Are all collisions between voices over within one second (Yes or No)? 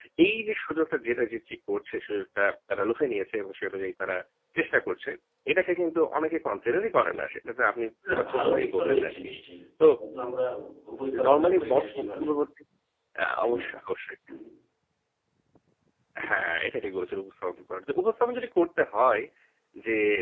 No